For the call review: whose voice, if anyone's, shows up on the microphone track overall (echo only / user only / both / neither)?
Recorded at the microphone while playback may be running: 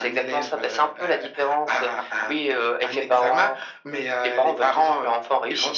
echo only